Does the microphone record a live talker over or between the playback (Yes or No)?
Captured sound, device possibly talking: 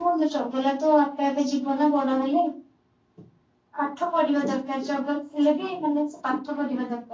Yes